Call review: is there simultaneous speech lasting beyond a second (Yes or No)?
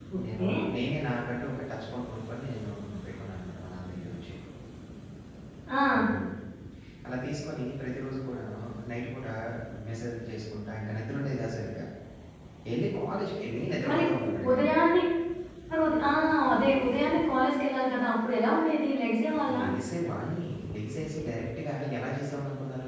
No